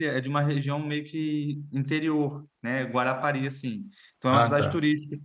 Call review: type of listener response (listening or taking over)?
listening